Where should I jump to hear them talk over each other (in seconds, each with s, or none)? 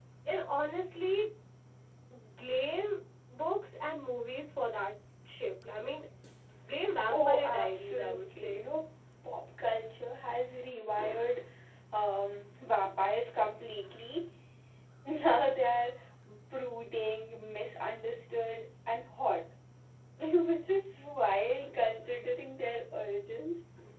7.1 s